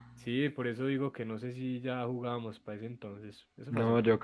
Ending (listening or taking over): taking over